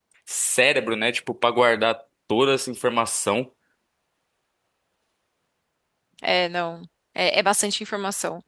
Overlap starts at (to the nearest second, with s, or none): none